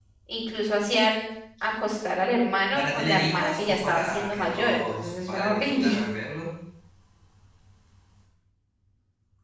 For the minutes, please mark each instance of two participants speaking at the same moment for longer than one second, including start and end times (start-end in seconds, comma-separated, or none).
2.7-6.0